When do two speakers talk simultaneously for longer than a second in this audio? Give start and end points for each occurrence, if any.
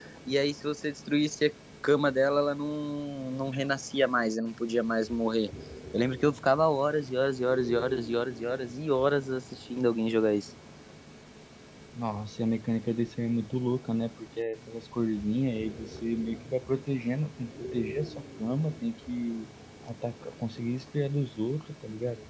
none

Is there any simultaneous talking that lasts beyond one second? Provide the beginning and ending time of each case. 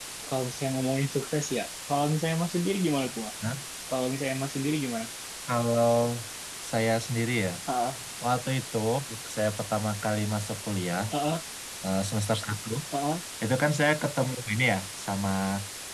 none

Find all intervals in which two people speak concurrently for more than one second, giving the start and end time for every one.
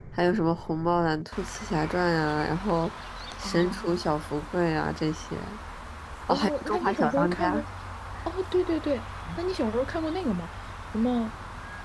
6.3-7.5

